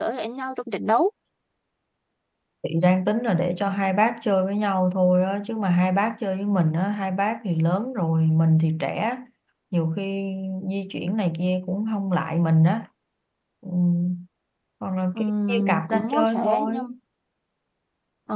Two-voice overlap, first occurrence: 15.2 s

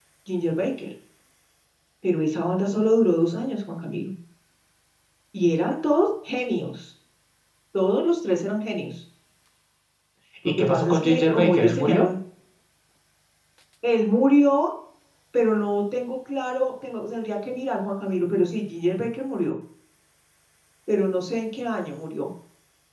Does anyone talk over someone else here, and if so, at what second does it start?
10.4 s

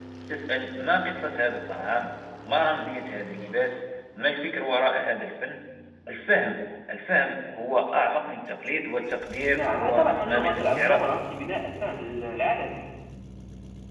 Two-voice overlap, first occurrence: 9.5 s

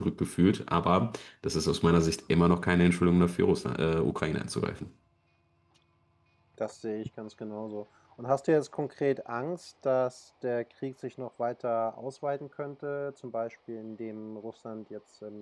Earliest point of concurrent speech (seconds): none

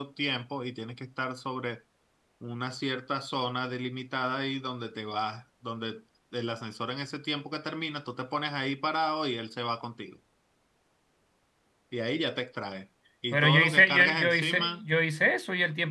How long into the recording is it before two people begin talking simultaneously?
13.3 s

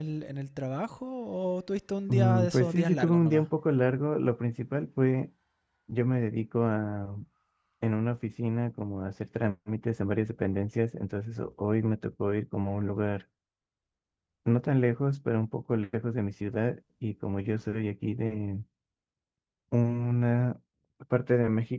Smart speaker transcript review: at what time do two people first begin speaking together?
2.1 s

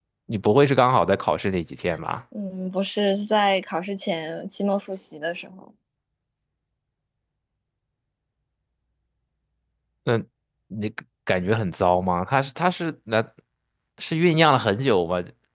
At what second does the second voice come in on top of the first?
none

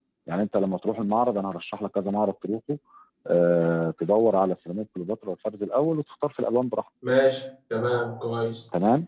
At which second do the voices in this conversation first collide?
none

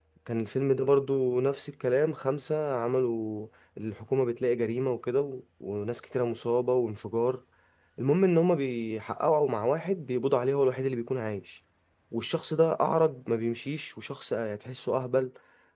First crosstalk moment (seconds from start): none

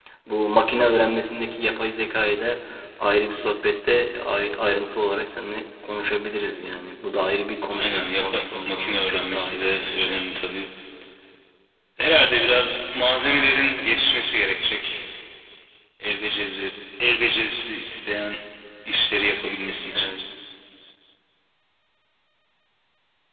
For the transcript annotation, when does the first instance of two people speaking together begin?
7.7 s

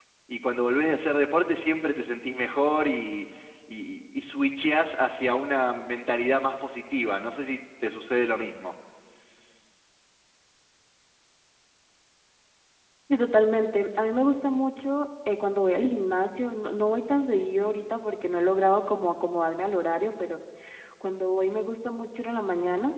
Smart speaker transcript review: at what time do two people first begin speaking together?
none

